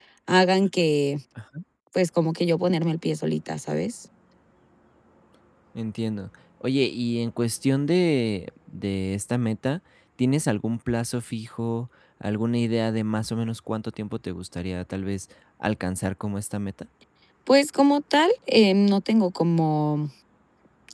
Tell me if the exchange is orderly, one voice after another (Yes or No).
Yes